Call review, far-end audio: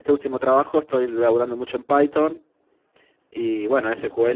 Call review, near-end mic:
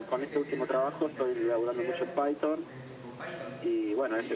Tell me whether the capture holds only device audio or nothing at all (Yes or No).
No